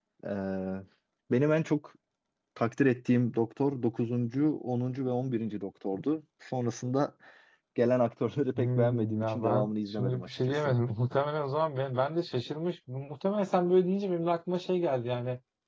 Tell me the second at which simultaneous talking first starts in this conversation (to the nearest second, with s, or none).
9 s